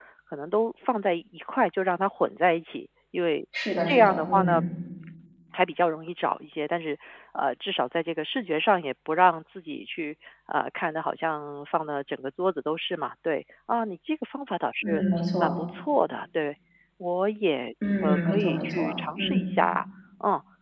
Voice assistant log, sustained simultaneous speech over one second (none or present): present